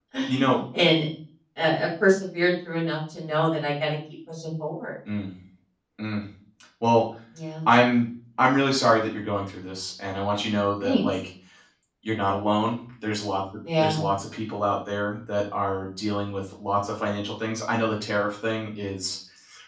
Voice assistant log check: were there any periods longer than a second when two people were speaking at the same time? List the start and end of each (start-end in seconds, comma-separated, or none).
none